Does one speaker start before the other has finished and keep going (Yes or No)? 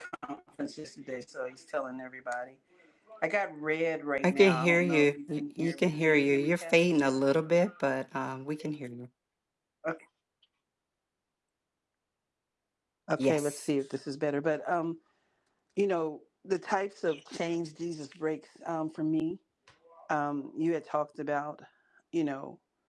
Yes